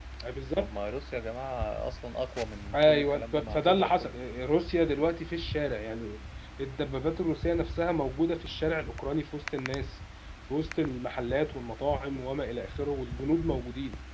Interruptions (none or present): present